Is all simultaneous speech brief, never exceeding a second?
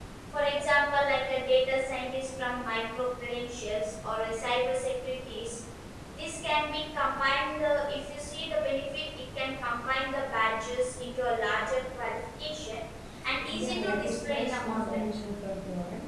No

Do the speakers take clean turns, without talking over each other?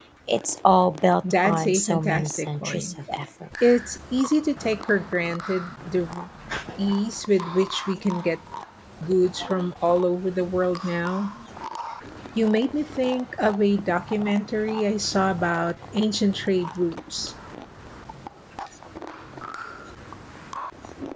No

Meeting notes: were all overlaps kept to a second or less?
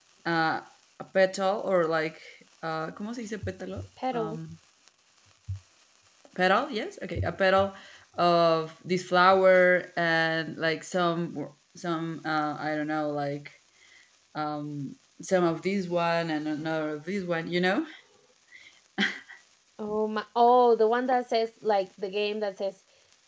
Yes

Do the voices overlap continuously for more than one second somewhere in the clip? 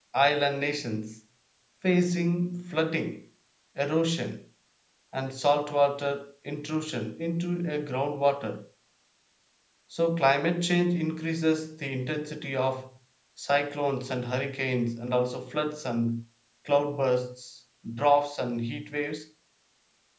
No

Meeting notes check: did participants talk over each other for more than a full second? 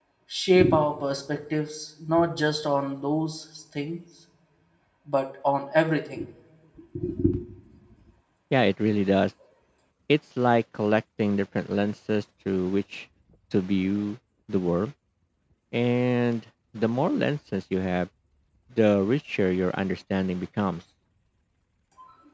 No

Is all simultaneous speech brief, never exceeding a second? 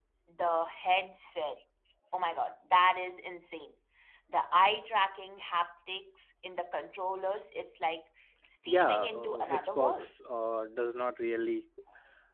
No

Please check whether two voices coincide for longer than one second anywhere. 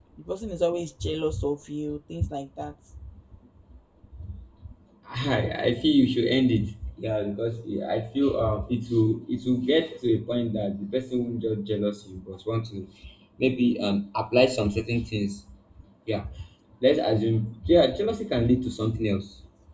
No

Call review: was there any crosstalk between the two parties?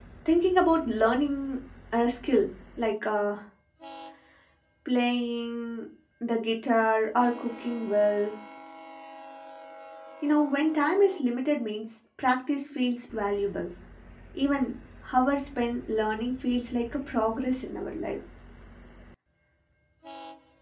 No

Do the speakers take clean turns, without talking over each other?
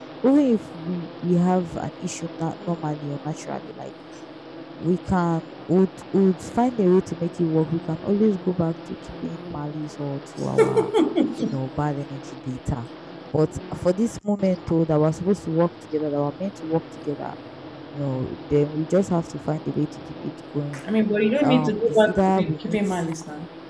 No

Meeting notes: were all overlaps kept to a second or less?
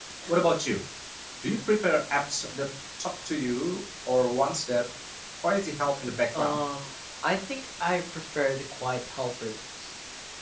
Yes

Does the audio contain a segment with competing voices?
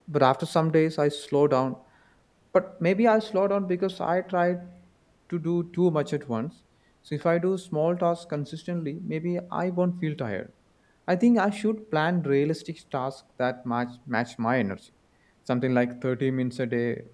No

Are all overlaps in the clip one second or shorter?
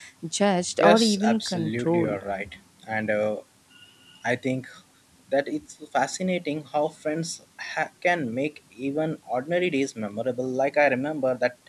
No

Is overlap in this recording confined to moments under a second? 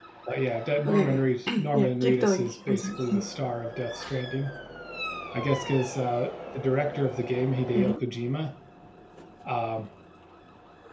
No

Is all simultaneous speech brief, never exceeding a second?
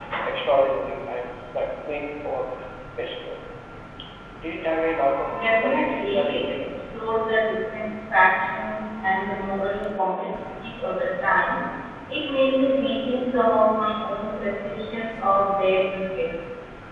No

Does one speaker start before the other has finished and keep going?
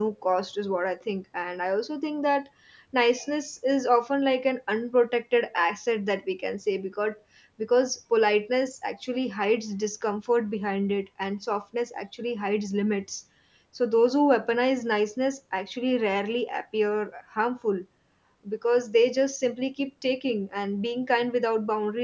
No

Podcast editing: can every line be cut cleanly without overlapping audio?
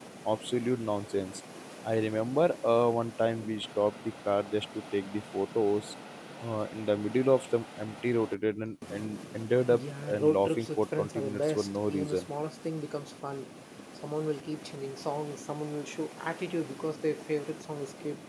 No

